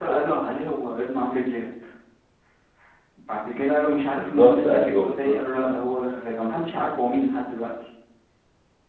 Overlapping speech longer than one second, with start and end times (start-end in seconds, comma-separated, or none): 4.2-5.3